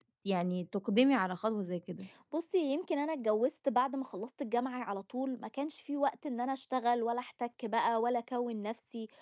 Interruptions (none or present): none